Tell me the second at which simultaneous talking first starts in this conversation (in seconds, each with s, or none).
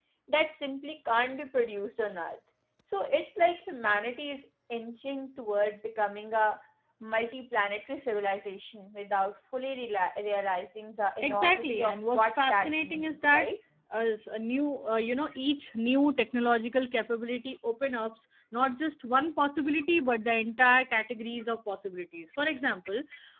11.2 s